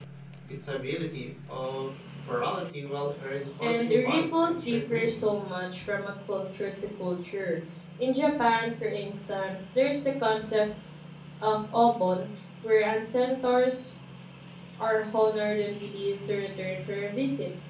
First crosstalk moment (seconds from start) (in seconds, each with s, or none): 3.6 s